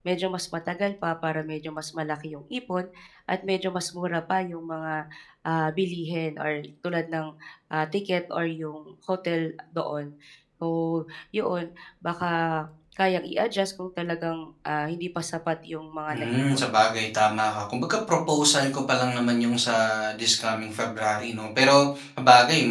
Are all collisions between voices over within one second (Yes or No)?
Yes